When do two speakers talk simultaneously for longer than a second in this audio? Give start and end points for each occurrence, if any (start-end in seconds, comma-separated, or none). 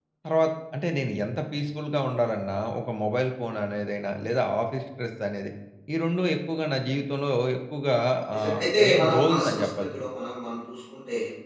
8.4-9.9